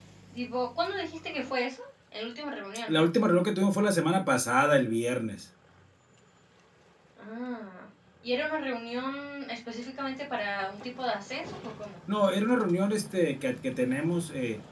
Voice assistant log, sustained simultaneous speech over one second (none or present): none